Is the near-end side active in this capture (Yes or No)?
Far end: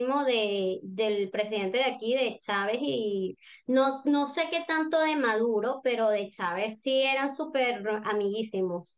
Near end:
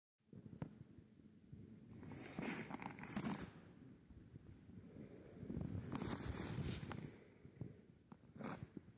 No